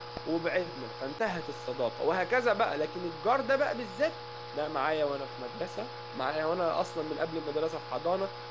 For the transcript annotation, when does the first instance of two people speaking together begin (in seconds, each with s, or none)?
none